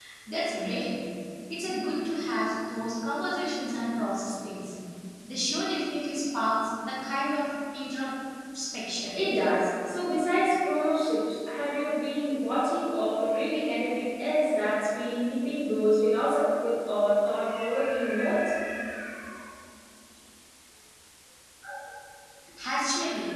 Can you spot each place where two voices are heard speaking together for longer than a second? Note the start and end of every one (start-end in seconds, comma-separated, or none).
none